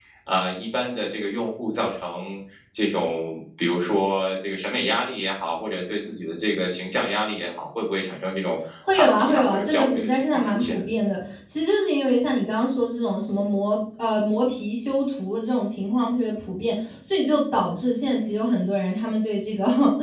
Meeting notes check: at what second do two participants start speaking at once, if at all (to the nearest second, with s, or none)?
9 s